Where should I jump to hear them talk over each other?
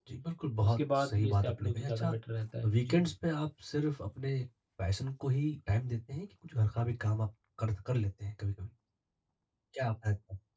0.7 s

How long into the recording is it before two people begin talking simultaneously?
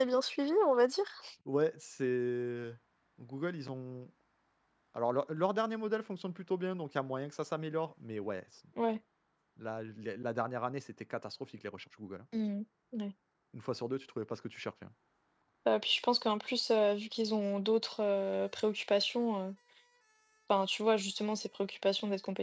none

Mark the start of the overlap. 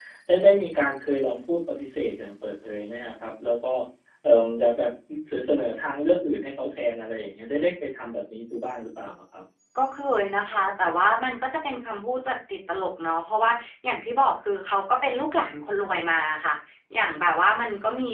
none

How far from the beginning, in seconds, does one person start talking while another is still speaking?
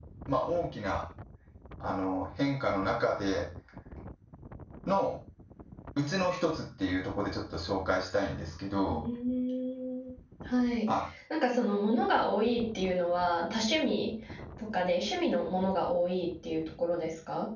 none

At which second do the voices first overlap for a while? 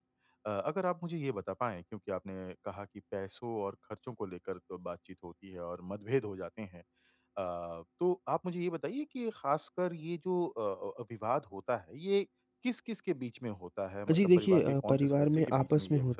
14.1 s

